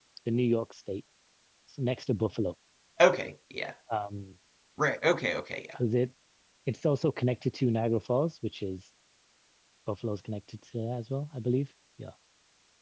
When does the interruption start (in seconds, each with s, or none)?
none